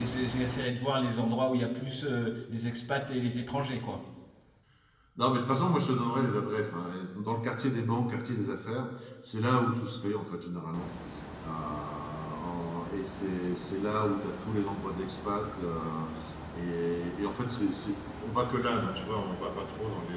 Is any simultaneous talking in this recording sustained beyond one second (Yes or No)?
No